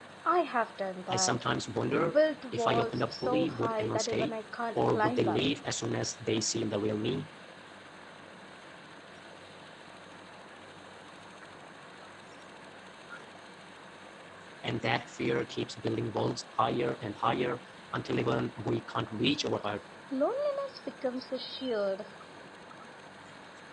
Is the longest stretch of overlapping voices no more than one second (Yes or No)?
No